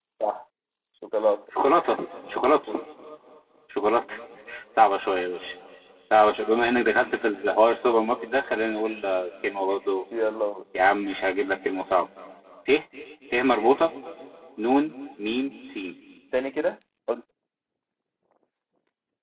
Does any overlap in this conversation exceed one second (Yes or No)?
No